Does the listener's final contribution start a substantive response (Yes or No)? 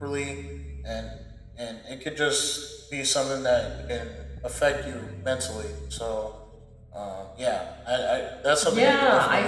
Yes